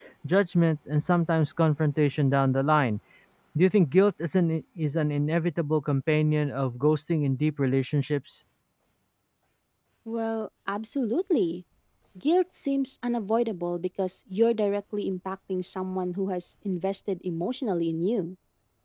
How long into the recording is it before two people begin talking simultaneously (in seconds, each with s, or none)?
none